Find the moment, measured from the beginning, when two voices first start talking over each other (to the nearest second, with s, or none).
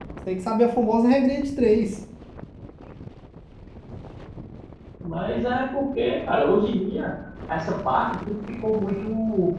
none